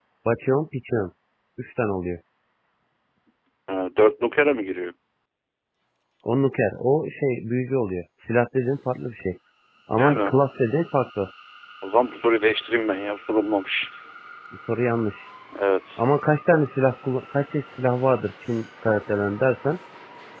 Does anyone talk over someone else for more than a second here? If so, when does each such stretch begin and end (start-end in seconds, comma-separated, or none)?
none